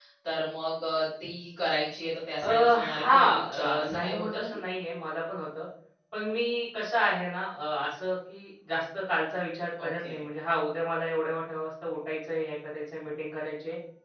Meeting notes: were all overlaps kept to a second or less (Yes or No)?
No